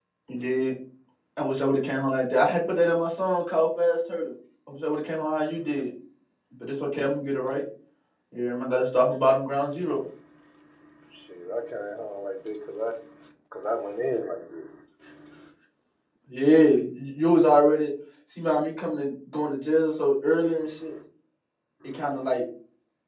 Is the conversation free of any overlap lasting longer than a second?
Yes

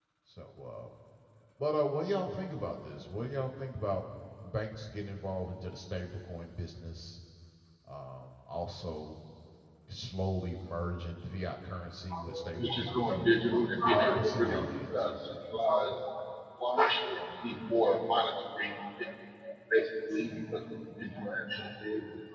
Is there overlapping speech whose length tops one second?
Yes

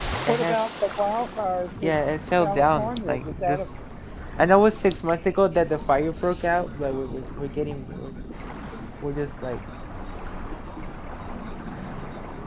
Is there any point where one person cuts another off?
Yes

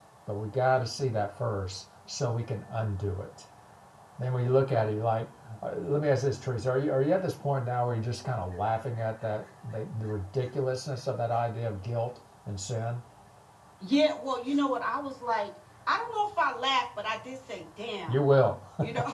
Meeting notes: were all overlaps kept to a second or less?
Yes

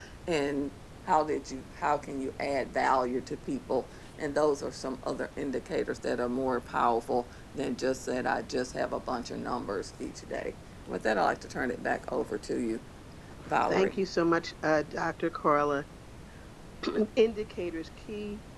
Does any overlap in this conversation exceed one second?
No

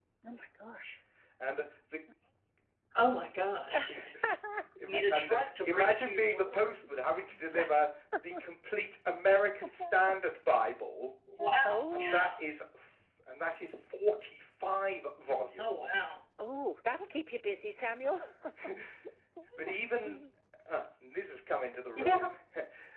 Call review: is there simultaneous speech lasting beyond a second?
Yes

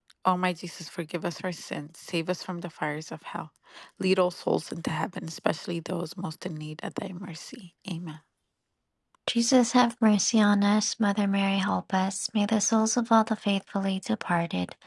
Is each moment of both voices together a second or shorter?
Yes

